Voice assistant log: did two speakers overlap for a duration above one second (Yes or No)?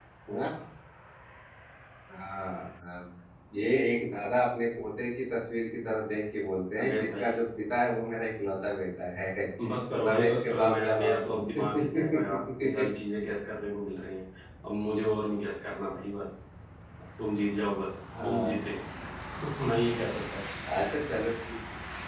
Yes